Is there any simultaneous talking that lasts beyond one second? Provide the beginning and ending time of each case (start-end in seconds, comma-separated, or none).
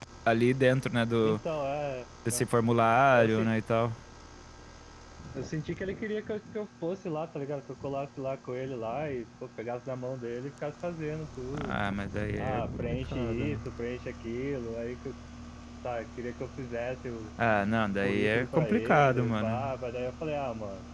12.4-13.6, 18.0-19.7